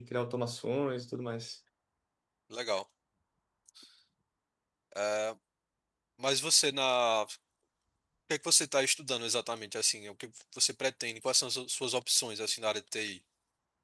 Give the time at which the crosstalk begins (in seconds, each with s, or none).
none